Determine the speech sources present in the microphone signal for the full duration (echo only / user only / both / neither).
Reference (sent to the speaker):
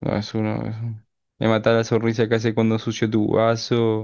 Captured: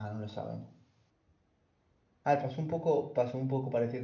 user only